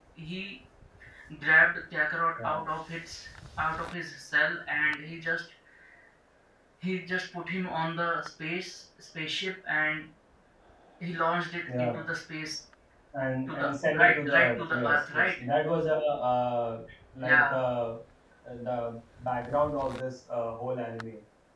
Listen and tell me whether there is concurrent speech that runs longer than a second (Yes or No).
Yes